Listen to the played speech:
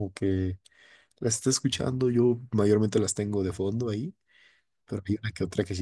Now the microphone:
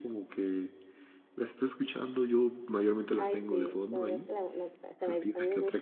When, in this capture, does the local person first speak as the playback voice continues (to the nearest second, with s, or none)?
3 s